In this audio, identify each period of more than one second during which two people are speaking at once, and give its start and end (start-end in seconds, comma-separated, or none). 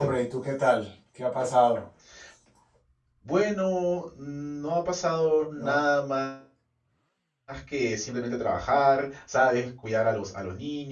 none